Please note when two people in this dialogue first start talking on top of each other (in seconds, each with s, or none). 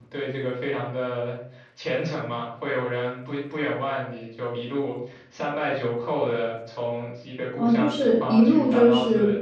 7.6 s